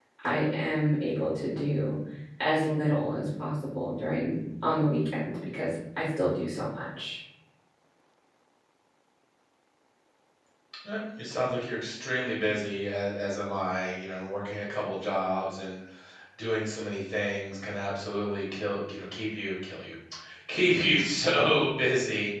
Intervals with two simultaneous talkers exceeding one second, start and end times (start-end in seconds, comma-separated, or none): none